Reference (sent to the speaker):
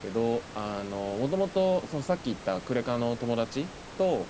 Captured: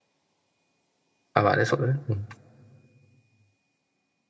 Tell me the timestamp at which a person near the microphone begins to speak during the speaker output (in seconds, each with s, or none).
1.3 s